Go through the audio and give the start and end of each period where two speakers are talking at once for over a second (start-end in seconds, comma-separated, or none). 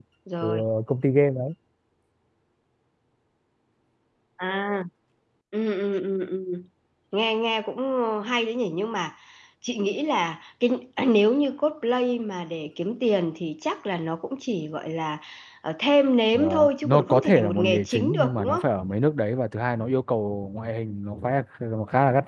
16.3-18.6